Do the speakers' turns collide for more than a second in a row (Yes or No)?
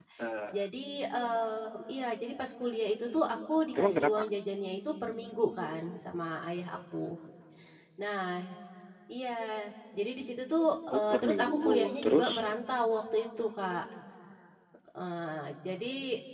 Yes